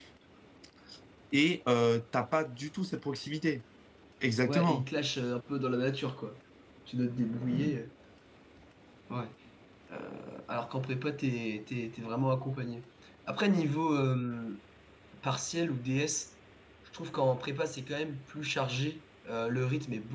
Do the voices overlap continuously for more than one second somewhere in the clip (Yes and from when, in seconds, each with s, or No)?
No